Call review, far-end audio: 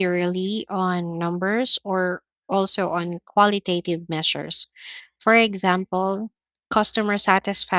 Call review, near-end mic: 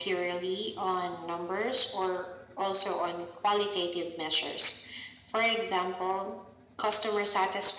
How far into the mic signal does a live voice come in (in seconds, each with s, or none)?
none